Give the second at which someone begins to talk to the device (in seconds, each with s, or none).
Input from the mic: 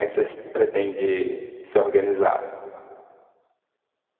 none